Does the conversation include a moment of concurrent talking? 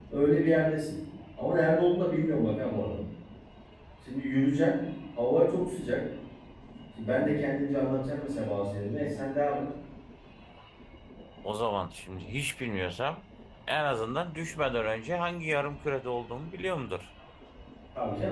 No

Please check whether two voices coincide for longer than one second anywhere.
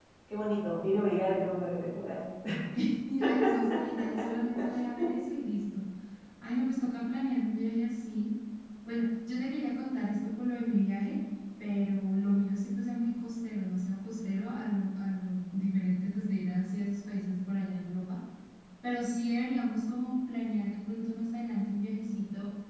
No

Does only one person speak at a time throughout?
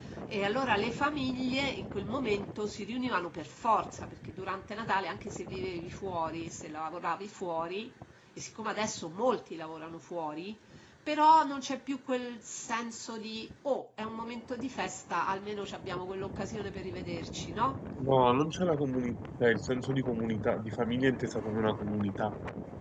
Yes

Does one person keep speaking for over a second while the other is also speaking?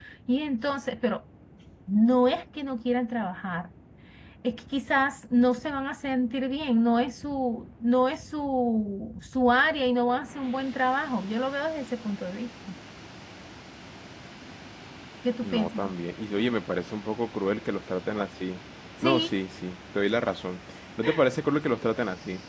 No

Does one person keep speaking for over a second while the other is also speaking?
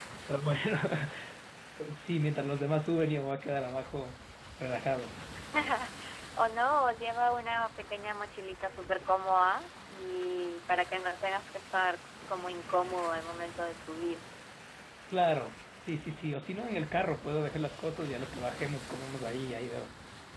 No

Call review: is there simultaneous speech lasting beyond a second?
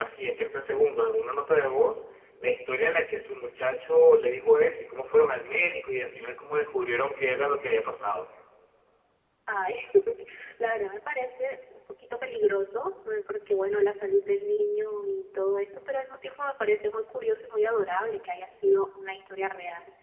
No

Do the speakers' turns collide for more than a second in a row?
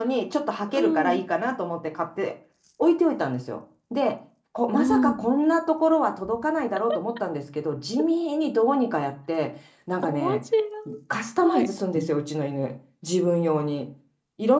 No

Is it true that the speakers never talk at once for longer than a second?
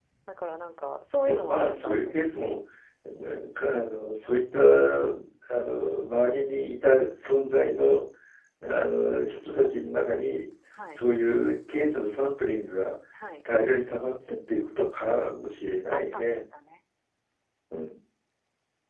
No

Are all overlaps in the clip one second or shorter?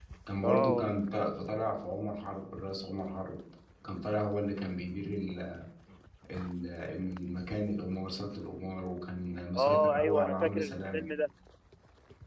No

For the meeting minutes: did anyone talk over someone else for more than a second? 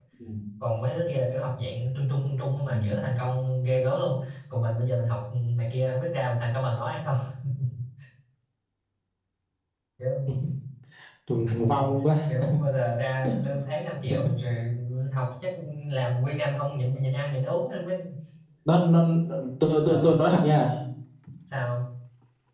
No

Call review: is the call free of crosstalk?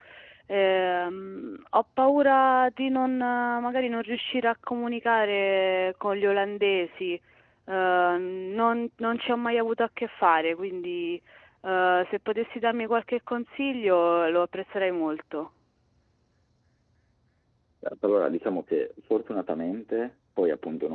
Yes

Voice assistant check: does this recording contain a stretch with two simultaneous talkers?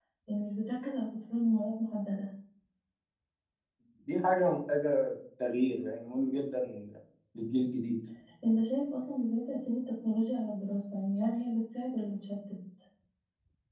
No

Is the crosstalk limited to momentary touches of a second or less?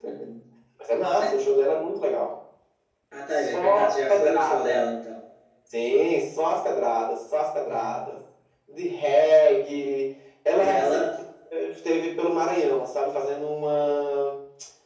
No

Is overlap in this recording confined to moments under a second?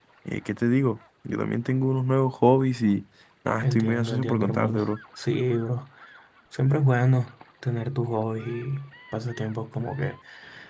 No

